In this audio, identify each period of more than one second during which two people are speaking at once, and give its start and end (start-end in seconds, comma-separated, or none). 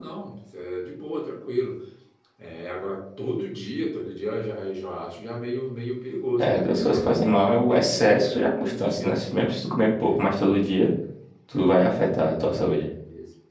6.4-9.2